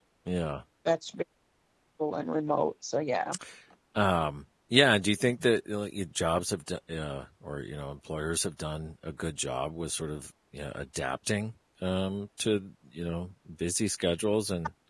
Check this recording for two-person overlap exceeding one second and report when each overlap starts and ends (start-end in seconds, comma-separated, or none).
none